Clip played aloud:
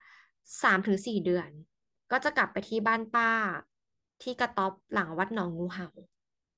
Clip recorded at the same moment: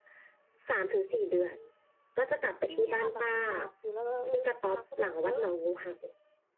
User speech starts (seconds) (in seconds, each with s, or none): 2.6 s